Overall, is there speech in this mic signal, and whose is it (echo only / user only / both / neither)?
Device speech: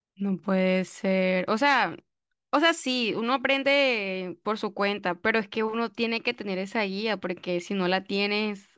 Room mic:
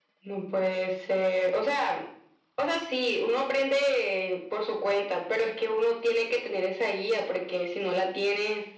echo only